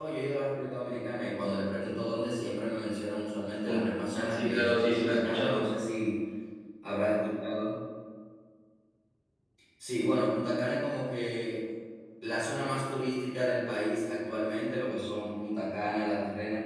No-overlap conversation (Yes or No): No